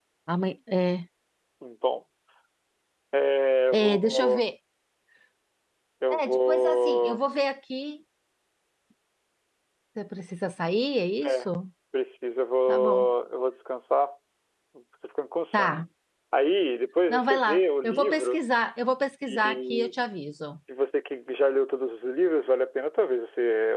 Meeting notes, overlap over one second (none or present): present